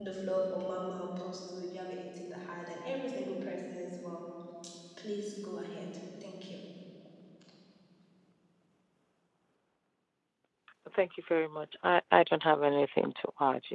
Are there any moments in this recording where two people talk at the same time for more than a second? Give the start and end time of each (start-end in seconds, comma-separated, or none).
none